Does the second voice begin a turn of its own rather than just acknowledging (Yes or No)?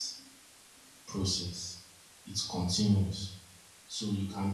No